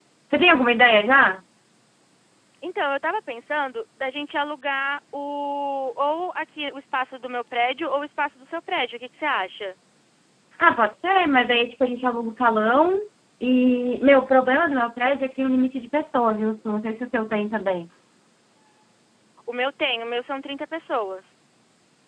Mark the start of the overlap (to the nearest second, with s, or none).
none